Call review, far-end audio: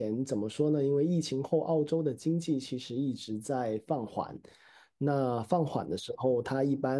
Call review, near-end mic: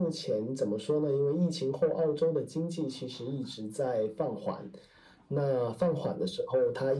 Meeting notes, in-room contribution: none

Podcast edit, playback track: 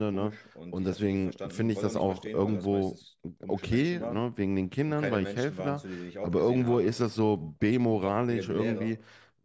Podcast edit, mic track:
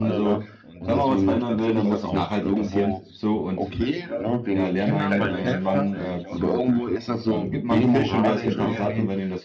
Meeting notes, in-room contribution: present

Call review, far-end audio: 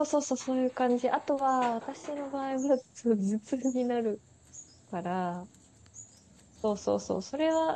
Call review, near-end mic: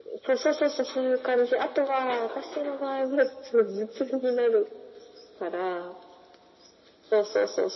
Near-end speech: none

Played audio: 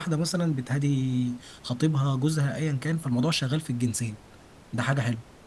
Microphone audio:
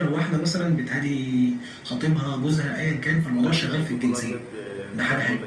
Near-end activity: present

